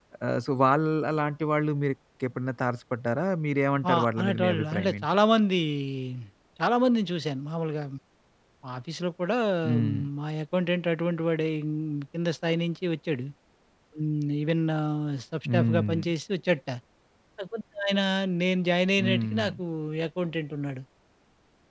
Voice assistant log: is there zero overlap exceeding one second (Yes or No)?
No